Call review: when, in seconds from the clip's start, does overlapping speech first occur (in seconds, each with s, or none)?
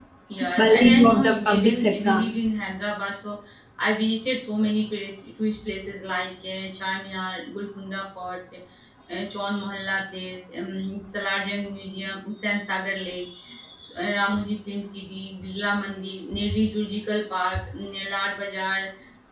0.6 s